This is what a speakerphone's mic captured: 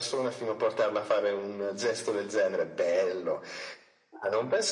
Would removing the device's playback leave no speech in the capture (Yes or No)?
Yes